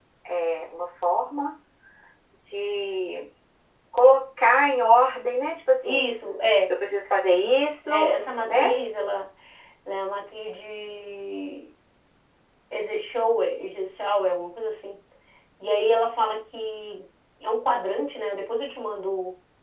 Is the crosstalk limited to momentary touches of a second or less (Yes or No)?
Yes